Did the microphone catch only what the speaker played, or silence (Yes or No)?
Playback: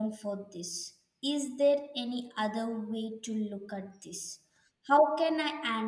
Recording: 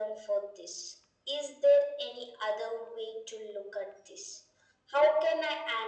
Yes